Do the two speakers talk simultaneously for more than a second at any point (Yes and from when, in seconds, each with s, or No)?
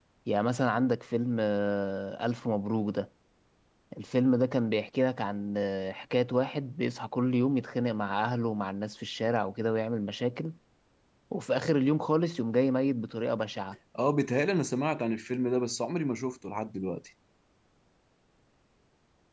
No